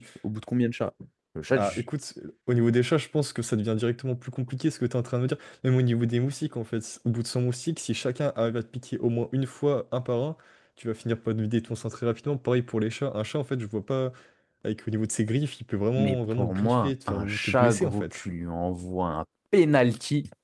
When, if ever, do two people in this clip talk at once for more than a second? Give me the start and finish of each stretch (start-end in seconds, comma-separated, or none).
16.0-18.2